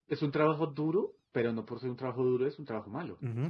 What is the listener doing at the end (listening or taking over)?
taking over